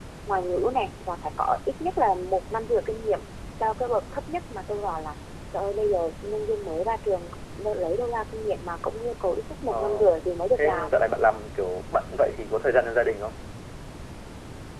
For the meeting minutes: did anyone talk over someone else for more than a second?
No

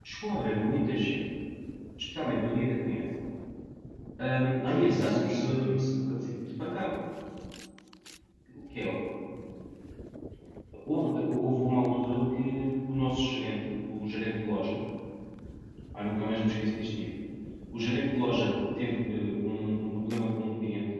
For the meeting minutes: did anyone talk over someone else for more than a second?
Yes, from 4.7 s

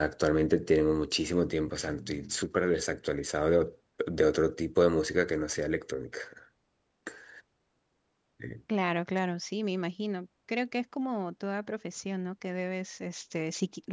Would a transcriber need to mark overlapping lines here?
No

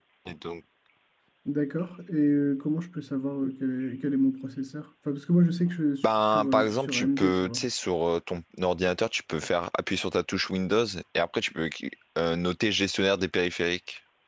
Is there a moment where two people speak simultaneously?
Yes, from 6.3 s

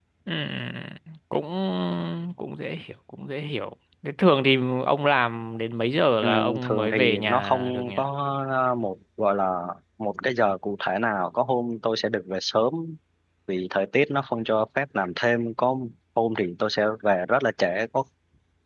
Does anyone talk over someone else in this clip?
Yes, from 6.2 s

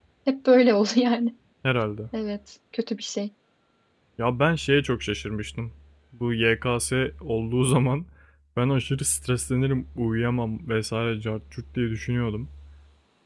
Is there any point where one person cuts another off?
No

